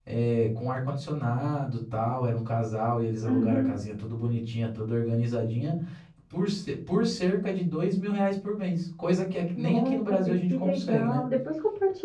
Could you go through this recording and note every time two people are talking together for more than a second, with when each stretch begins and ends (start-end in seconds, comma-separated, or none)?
9.5-11.2